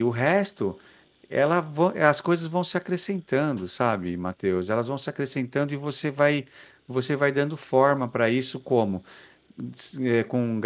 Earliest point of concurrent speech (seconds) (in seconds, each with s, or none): none